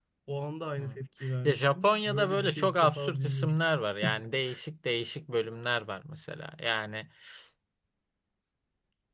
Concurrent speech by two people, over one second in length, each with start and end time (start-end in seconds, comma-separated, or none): 1.4-3.6